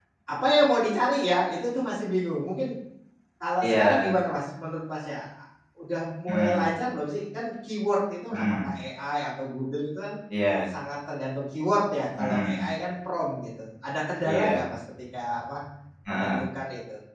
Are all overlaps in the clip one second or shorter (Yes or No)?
Yes